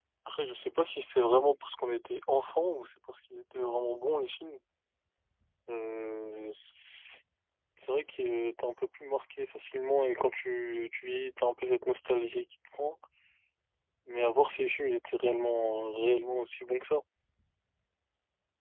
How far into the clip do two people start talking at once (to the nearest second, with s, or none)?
none